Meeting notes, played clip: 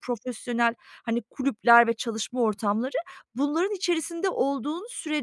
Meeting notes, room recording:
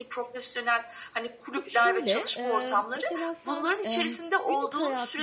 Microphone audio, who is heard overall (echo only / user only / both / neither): both